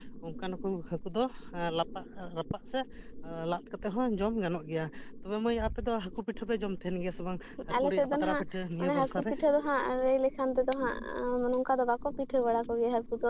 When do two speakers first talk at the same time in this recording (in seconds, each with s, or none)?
7.7 s